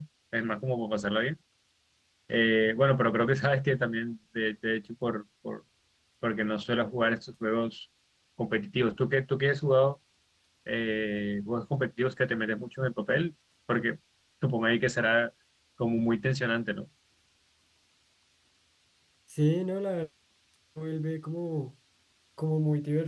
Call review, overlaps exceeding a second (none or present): none